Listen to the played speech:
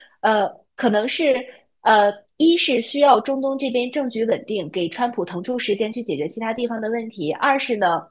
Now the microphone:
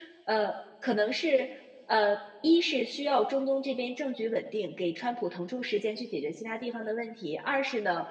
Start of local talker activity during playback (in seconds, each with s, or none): none